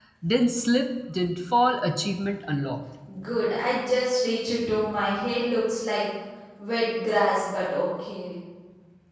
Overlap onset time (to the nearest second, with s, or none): none